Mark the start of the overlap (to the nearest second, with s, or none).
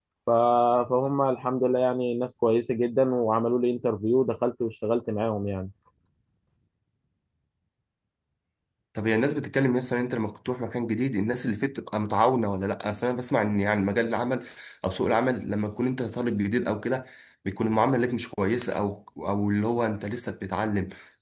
none